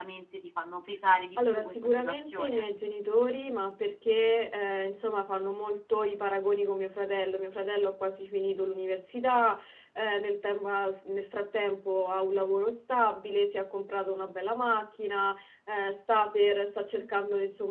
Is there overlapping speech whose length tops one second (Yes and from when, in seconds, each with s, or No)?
Yes, from 1.4 s